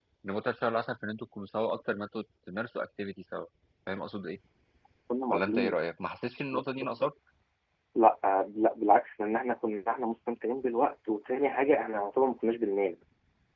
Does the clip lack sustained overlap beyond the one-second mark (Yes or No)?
Yes